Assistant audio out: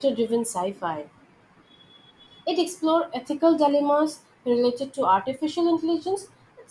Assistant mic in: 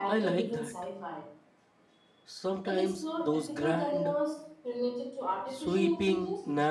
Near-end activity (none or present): present